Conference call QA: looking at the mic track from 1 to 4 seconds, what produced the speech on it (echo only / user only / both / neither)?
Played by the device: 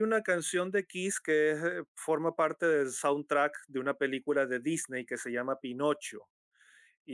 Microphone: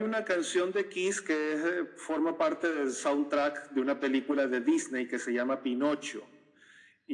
echo only